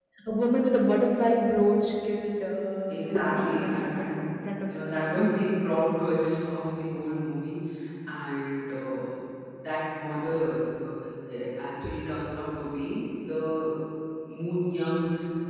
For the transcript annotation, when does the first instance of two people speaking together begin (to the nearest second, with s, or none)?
3 s